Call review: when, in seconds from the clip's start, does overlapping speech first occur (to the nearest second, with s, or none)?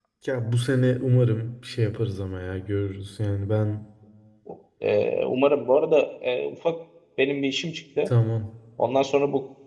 none